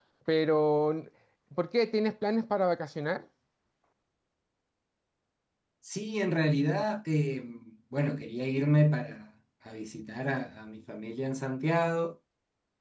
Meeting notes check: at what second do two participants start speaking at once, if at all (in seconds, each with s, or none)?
none